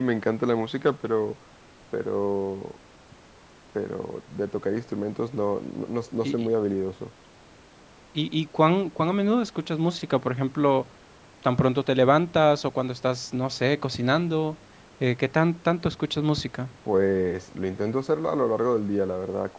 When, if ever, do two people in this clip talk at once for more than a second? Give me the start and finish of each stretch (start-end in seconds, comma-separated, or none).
none